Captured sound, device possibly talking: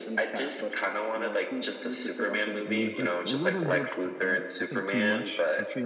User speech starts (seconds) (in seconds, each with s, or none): 2.6 s